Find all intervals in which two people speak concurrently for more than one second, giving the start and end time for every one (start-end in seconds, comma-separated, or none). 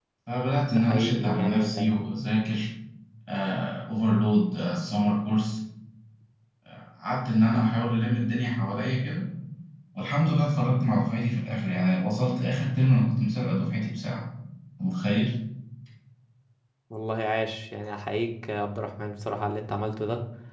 0.7-2.1